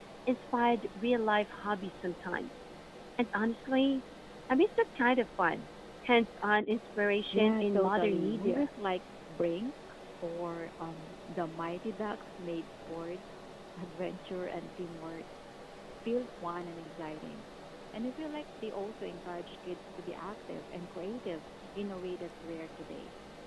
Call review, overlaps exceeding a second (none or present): present